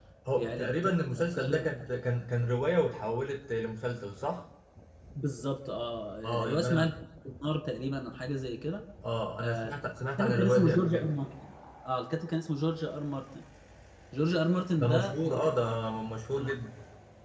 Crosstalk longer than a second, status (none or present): present